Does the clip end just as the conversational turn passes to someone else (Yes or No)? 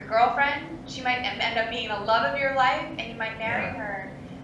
No